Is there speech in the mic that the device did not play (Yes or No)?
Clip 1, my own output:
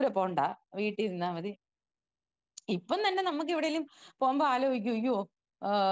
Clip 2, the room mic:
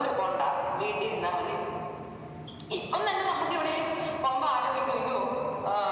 No